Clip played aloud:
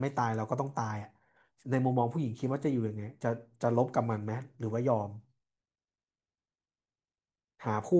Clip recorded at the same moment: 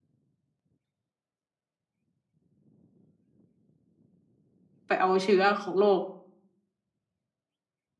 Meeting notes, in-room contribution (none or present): present